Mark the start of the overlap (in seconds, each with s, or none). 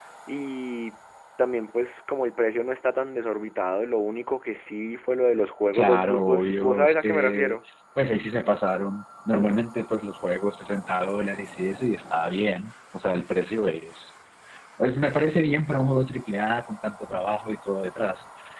5.7 s